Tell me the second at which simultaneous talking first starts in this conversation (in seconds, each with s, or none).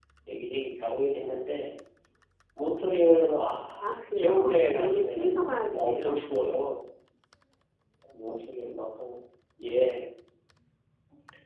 3.8 s